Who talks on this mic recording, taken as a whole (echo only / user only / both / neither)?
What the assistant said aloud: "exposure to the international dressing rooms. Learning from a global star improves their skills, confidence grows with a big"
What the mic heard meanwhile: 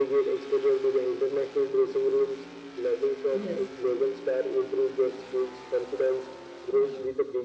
both